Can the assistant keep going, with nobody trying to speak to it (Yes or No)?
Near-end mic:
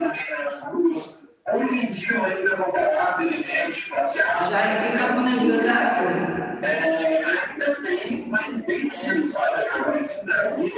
No